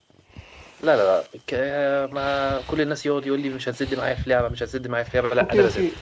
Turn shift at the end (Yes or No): Yes